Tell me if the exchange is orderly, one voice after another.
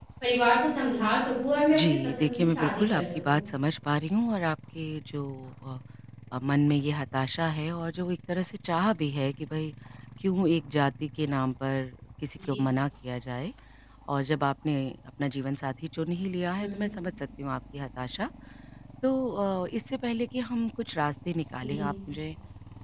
No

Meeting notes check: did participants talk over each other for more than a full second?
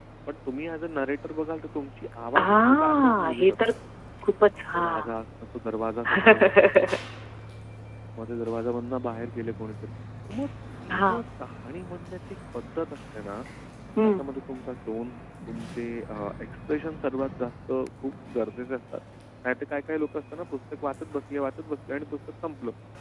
Yes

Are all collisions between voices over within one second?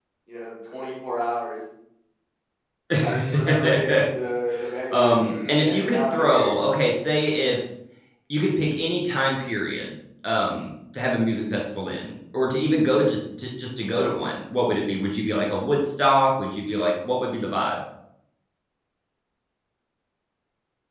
No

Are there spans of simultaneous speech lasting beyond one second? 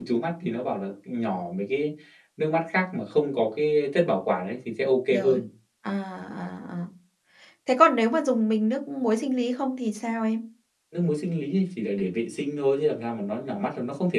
No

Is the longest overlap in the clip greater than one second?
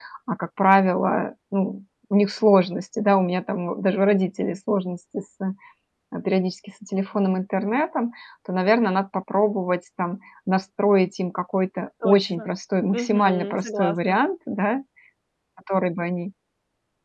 Yes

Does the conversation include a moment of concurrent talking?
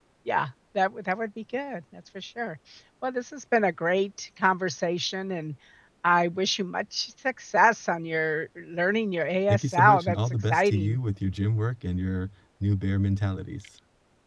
Yes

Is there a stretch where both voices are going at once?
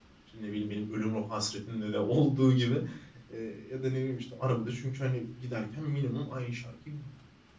No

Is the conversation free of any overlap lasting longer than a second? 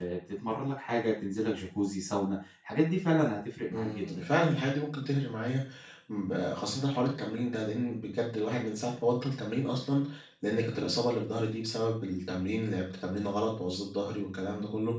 Yes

